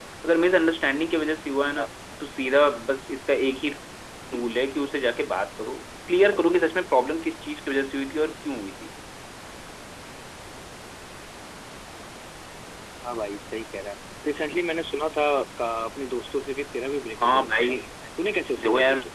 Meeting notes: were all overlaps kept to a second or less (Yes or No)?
Yes